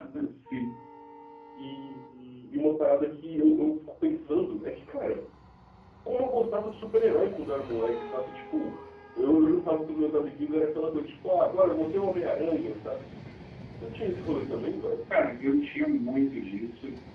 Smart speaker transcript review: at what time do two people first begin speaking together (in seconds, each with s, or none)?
none